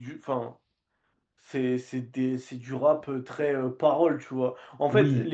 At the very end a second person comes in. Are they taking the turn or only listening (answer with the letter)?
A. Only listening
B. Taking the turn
A